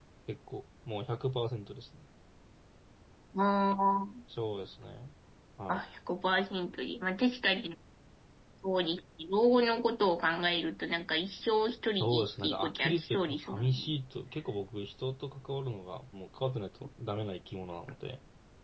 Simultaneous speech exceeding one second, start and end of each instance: 12.0-13.9

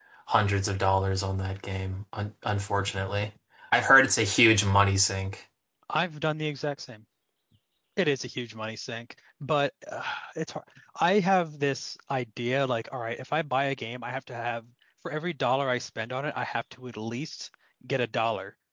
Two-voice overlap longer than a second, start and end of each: none

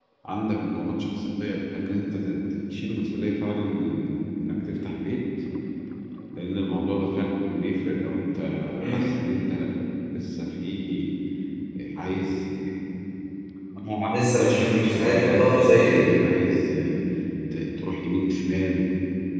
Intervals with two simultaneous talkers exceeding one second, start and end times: 14.1-16.0

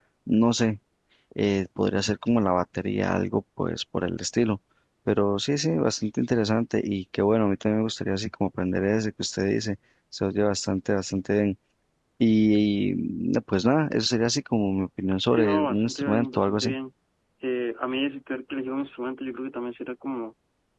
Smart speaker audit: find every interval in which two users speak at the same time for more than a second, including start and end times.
15.3-16.8

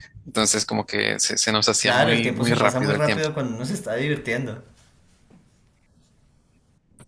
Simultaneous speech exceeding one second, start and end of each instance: 1.8-3.3

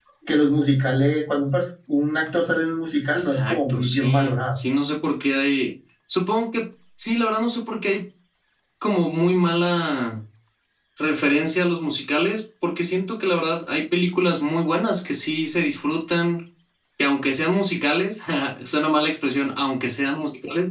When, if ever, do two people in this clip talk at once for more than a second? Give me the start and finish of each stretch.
3.2-4.6

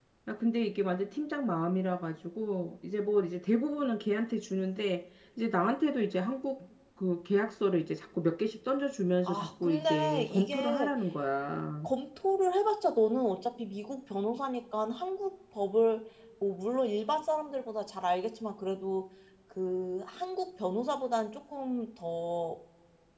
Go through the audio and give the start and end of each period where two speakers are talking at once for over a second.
9.2-10.9

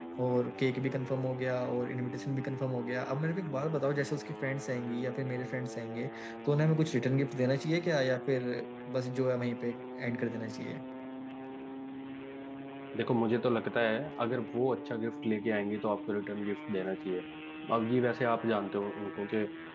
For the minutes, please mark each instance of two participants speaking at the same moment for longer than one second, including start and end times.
none

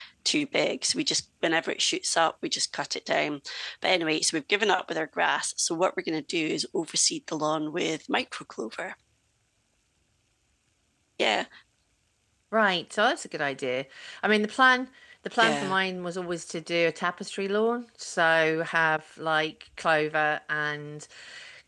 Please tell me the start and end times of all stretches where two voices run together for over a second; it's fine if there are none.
none

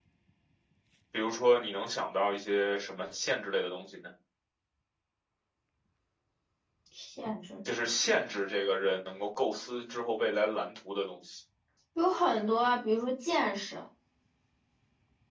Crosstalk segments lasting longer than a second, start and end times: none

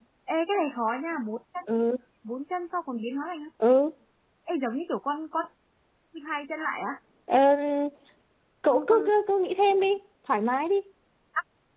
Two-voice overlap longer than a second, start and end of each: none

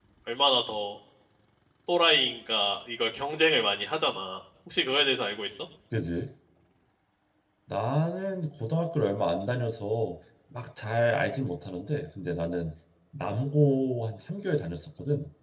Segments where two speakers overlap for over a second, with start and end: none

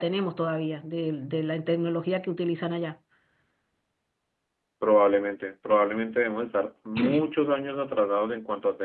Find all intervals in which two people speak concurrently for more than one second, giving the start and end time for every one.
none

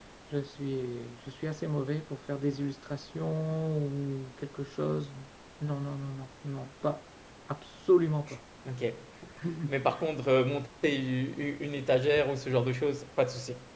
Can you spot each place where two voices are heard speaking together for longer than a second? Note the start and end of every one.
none

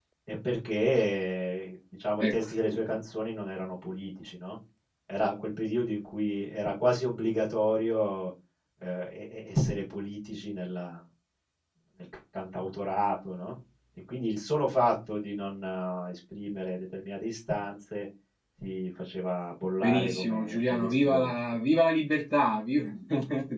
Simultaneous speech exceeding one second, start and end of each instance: 19.8-21.3

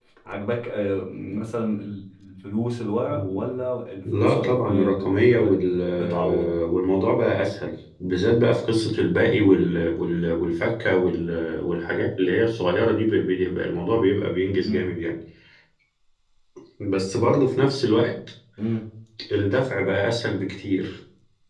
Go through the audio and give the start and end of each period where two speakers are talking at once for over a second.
4.1-5.5

